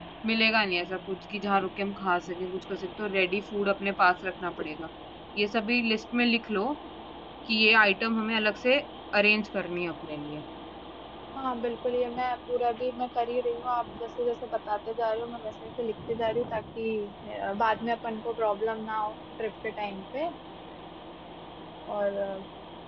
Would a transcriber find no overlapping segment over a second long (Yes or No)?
Yes